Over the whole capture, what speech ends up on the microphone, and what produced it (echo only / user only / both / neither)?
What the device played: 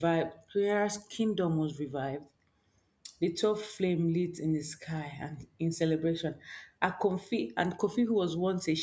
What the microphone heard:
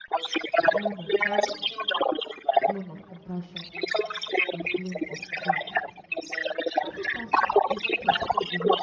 both